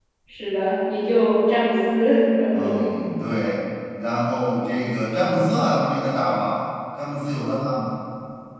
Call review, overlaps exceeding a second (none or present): none